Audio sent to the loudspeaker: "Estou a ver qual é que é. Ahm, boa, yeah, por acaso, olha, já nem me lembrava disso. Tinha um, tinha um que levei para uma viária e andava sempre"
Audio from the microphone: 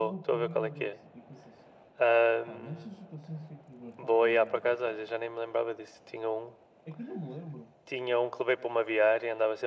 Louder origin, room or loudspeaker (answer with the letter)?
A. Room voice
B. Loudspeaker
B